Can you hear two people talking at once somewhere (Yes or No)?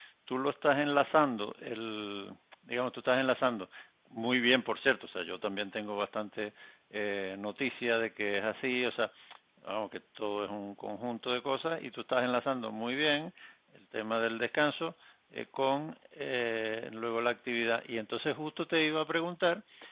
No